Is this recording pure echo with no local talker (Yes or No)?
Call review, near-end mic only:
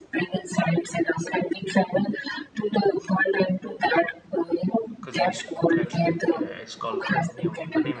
No